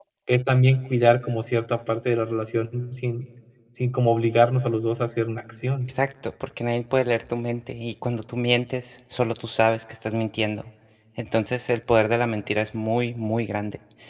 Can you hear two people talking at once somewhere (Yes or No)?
No